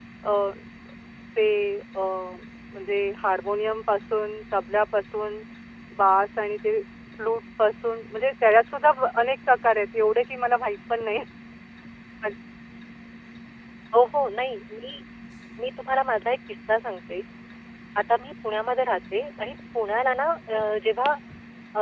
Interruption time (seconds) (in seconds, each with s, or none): none